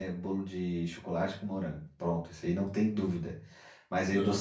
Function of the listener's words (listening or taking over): listening